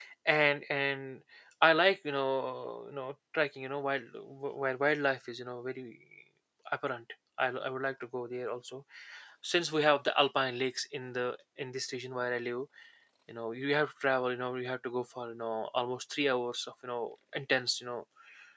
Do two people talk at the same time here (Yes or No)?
No